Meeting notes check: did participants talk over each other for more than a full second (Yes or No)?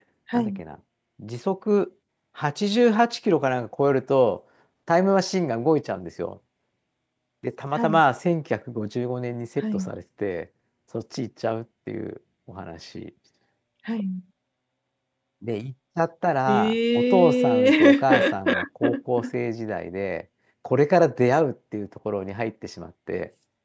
Yes